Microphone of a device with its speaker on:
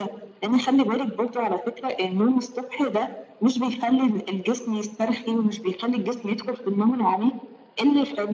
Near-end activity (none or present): none